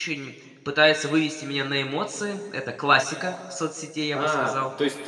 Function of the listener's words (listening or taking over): taking over